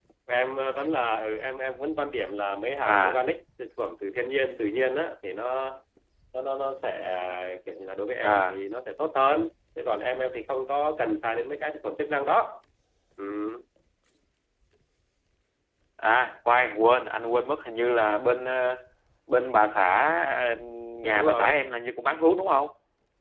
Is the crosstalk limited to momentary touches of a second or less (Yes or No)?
Yes